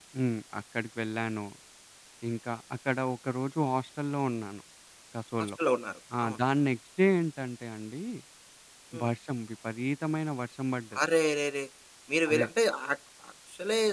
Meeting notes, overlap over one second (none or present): none